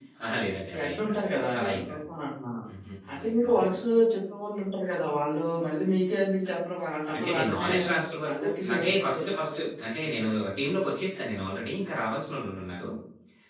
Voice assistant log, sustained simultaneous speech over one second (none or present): present